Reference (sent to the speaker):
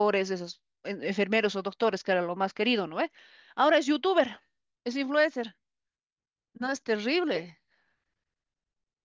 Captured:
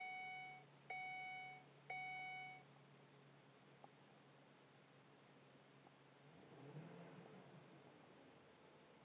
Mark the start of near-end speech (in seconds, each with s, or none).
none